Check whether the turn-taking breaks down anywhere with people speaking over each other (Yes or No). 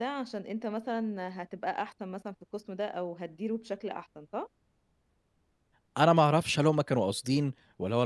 No